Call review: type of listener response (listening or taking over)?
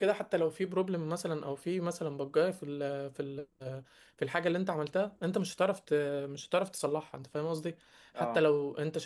listening